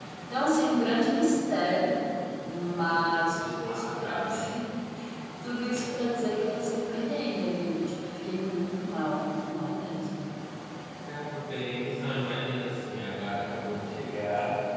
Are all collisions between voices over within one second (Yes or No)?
No